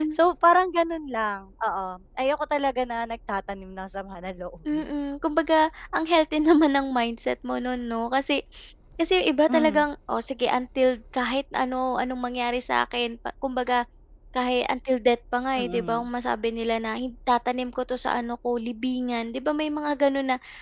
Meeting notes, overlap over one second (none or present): none